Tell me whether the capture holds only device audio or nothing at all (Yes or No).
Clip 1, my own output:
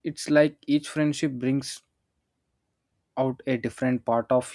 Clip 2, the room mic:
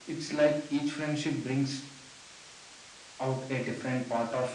Yes